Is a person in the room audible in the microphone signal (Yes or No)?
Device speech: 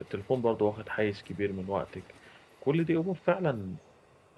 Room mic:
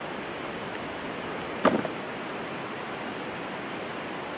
No